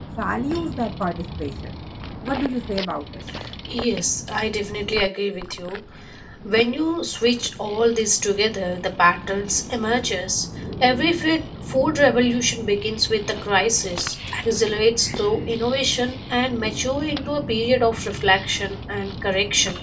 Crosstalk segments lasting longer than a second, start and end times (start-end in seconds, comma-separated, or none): none